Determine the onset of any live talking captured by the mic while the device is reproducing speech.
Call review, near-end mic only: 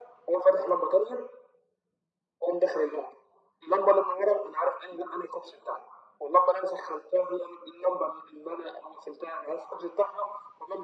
none

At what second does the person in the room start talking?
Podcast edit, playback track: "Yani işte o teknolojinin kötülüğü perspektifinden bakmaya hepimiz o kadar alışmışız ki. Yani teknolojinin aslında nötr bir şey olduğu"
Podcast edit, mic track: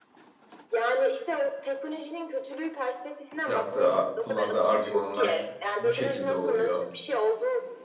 3 s

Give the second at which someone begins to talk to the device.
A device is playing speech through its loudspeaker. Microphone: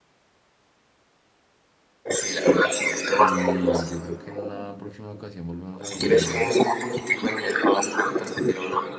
3 s

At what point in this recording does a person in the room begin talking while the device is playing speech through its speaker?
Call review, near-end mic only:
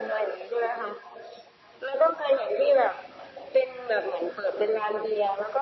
none

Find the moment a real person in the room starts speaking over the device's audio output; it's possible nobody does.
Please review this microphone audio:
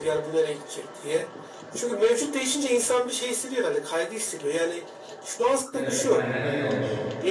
6 s

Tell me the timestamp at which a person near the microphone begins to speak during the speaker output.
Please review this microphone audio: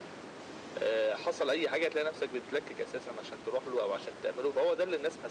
none

